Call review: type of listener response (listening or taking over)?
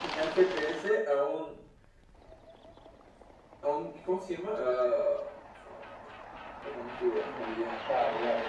taking over